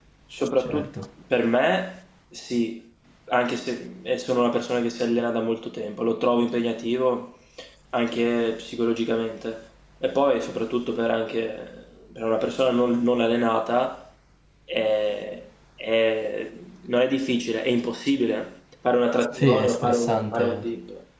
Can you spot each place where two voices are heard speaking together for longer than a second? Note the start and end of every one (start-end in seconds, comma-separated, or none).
19.3-20.7